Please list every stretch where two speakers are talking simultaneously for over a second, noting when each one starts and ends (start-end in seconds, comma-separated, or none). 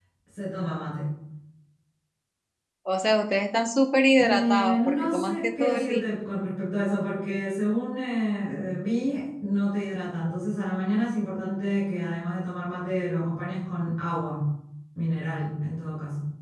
4.2-6.1